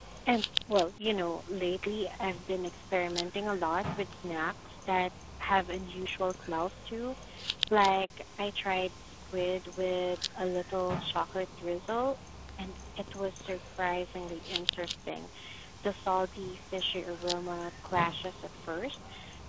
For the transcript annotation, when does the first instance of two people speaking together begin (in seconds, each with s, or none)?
none